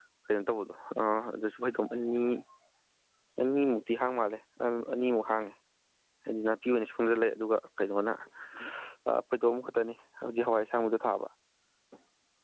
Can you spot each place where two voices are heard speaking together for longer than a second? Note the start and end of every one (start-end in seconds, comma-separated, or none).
none